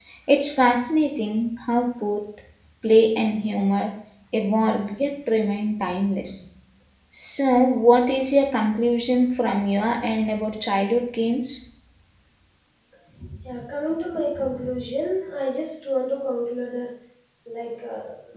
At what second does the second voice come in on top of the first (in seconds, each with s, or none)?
none